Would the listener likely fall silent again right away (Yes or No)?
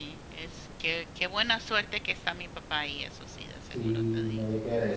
No